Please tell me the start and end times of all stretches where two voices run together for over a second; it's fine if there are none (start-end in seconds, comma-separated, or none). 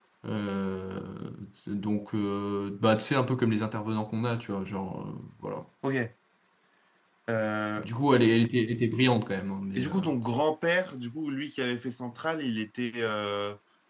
none